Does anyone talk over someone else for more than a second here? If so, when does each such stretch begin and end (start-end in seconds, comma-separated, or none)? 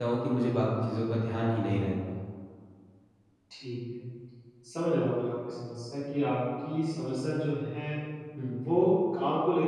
none